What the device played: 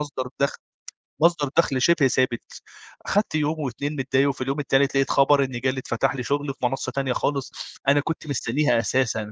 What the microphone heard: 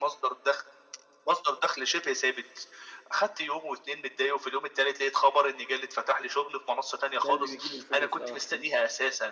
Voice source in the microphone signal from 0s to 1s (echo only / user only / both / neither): echo only